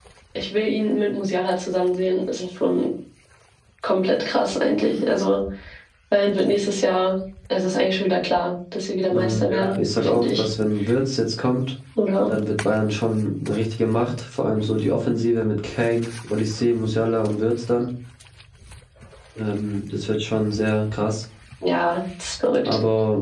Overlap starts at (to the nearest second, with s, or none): 9 s